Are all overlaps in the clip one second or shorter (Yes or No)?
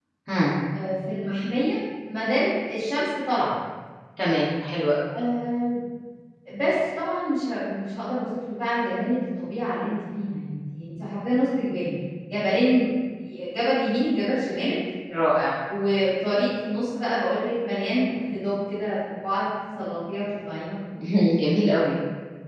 Yes